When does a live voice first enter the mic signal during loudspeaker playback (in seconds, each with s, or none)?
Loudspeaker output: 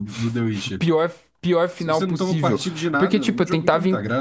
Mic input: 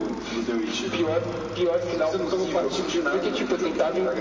0.8 s